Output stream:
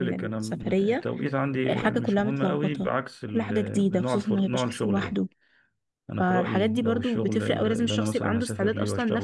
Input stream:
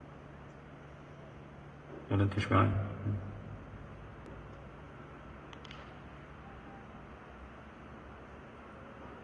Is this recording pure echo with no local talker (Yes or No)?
No